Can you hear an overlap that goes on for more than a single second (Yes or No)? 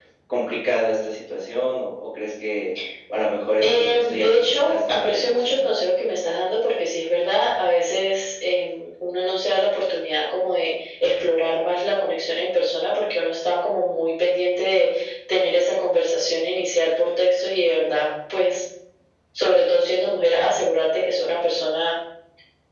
Yes